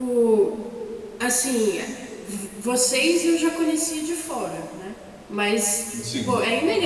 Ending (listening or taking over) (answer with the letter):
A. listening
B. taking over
A